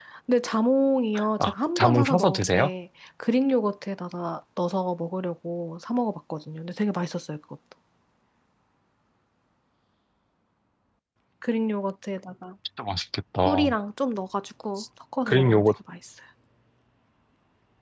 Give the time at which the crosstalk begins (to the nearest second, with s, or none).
1 s